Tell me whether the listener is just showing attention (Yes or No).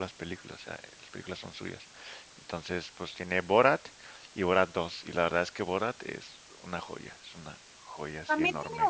No